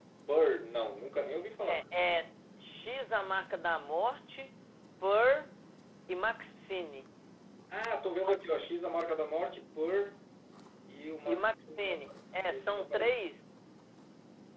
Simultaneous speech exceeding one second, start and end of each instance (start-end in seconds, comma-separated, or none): 11.3-13.1